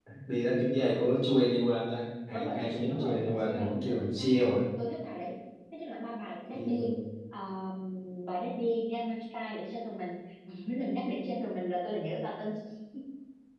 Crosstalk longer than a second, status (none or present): present